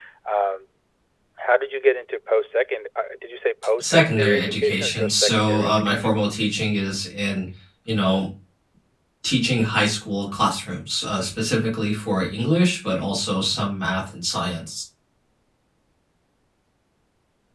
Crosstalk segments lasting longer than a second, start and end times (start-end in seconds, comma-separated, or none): 3.8-6.3